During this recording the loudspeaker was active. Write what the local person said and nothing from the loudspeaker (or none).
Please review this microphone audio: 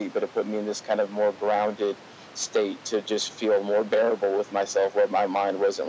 none